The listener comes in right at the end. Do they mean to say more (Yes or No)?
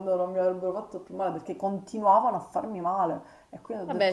Yes